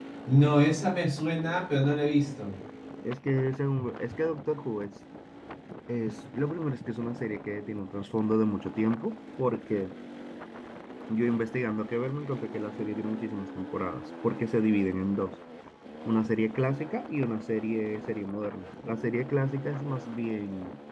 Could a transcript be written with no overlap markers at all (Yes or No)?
Yes